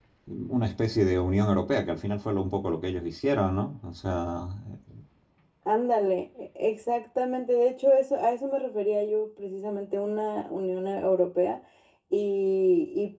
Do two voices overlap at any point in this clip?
No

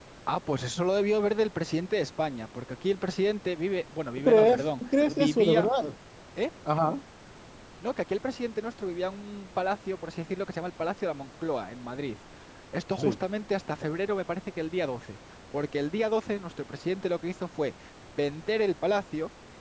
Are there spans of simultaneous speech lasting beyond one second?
Yes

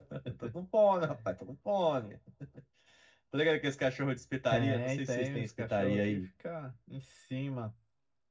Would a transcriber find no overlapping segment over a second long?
No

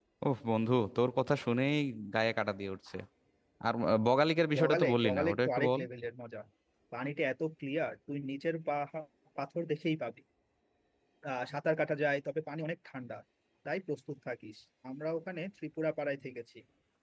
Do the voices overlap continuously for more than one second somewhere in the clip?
Yes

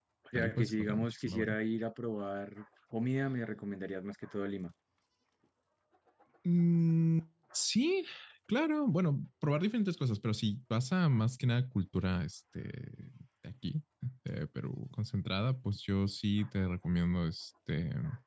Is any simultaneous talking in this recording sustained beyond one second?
Yes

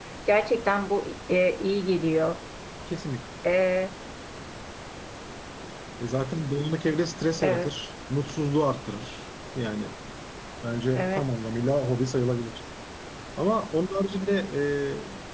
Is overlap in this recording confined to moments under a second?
Yes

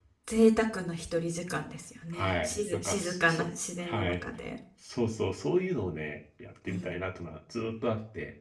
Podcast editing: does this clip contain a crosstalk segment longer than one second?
Yes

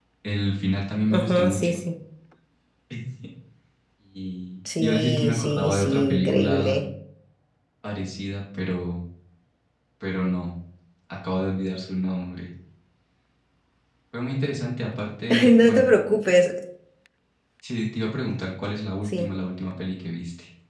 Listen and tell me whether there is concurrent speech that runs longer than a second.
Yes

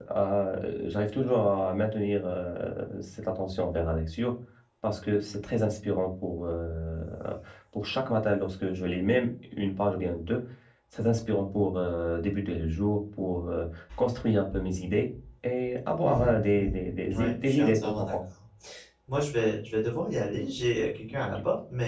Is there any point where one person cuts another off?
Yes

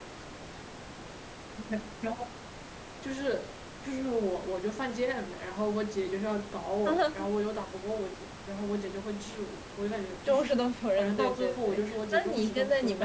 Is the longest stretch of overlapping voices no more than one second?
No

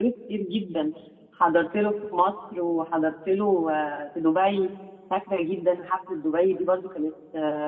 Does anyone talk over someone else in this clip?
No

